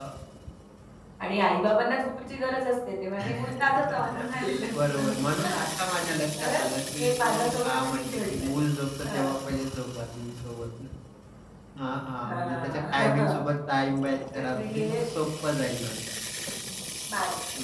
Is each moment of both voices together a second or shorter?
No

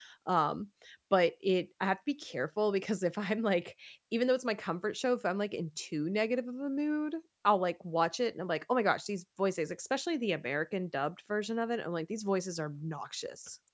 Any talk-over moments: No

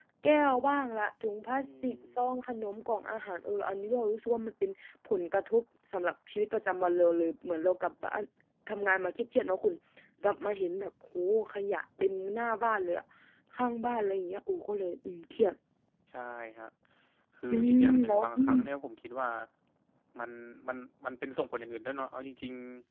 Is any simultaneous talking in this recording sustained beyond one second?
Yes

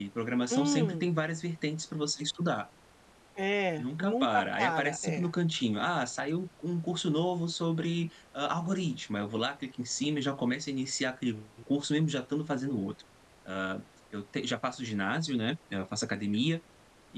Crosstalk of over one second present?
Yes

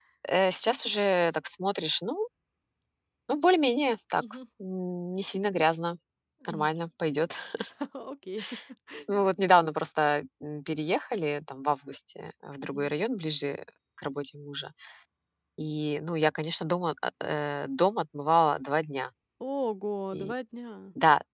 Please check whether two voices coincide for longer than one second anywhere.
No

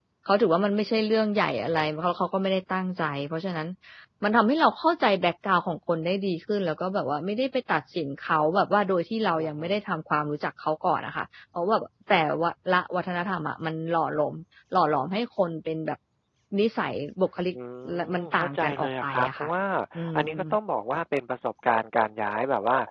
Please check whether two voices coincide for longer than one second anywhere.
Yes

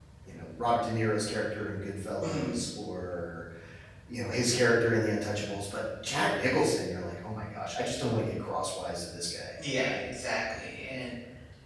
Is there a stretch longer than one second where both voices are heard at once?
No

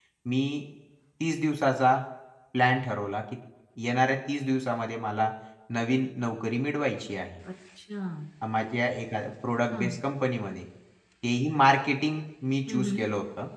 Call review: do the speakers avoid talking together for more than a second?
Yes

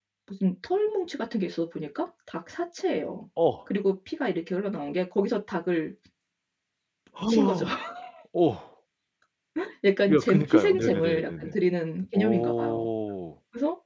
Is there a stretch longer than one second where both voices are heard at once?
Yes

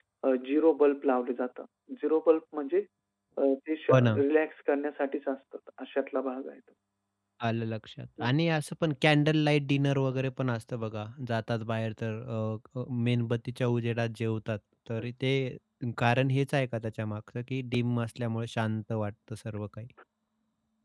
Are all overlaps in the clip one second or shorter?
Yes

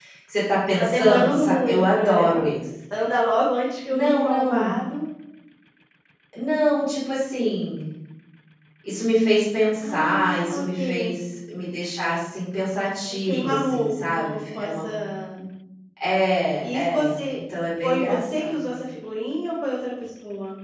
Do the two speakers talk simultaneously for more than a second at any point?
Yes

